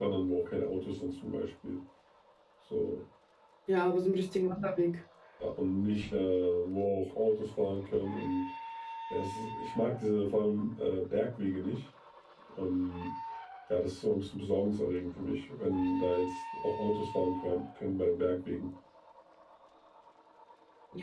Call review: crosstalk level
none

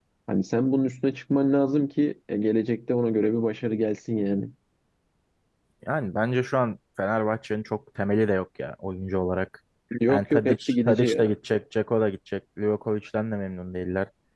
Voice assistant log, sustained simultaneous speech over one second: present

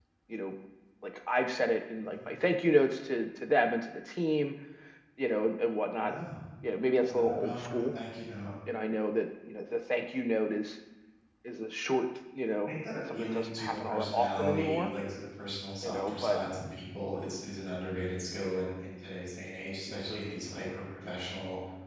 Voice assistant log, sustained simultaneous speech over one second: present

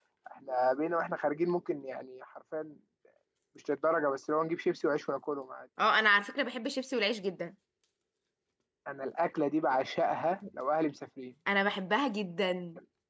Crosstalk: none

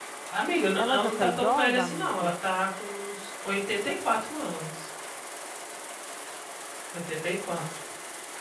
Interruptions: present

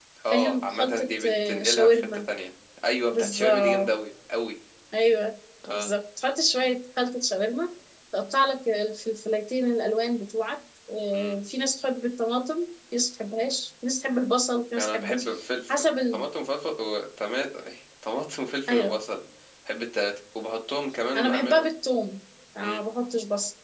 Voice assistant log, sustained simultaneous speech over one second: present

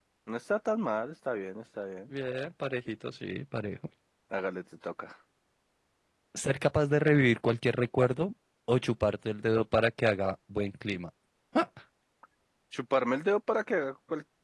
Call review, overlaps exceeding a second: none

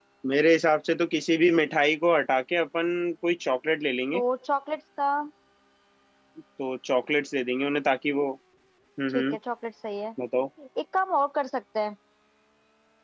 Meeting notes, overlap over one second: none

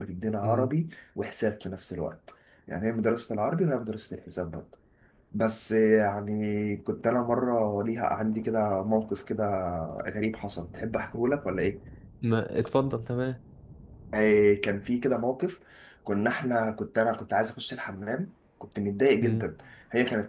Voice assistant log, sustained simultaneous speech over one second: none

